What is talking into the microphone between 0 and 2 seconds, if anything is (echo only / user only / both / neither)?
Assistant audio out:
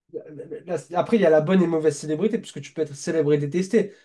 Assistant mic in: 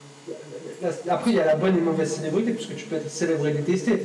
echo only